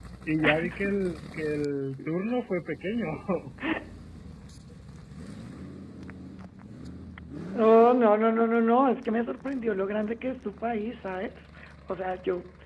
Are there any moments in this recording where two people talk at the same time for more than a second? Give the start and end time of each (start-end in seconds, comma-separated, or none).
none